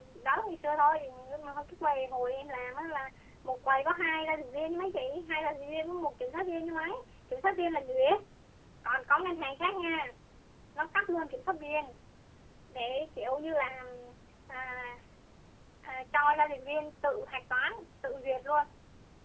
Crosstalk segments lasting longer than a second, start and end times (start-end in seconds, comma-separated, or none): none